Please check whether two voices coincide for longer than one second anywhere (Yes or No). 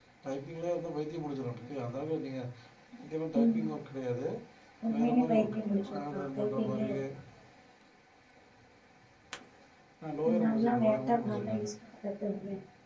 Yes